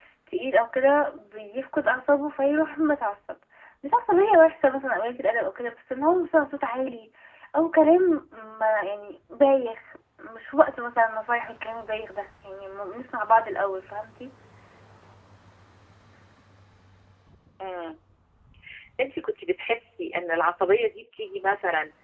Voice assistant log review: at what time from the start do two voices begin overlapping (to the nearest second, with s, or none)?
none